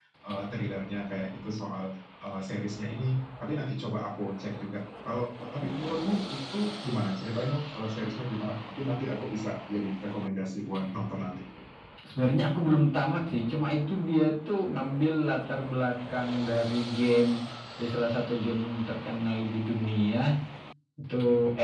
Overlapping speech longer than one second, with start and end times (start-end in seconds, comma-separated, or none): none